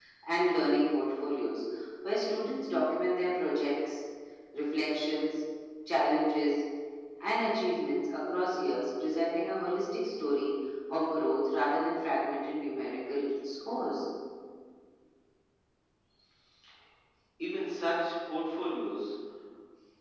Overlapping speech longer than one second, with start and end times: none

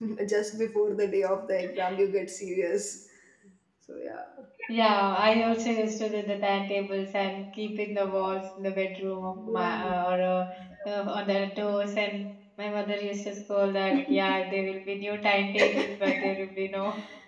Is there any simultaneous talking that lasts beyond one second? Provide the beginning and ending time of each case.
none

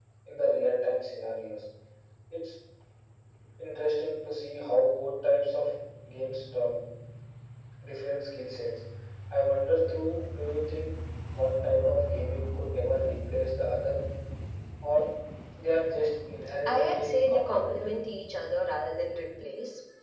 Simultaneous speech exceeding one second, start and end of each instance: 16.6-18.0

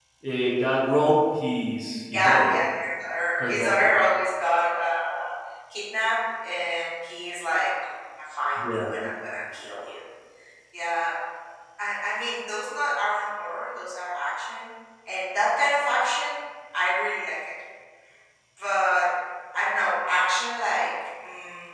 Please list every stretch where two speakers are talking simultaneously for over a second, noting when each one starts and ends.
none

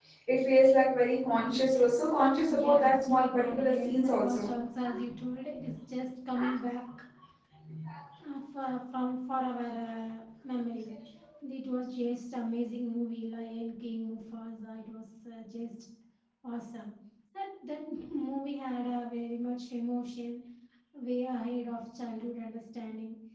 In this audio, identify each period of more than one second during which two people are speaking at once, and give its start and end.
2.5-4.5

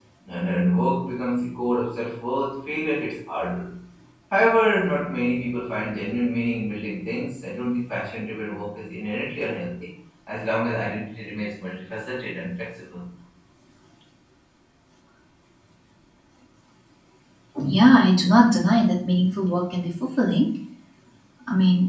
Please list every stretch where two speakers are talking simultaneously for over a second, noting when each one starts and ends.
none

